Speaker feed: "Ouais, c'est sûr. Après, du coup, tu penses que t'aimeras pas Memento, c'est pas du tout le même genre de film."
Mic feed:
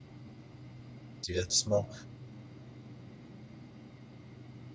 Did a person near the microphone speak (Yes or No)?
Yes